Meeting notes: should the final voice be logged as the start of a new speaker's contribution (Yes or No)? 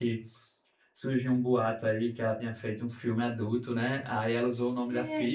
No